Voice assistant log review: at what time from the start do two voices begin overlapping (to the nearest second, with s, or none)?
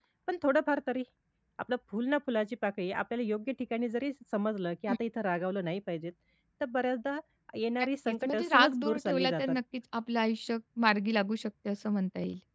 8 s